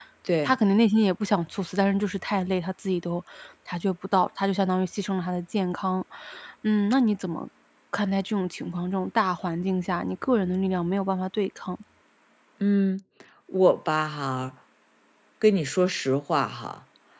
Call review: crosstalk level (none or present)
none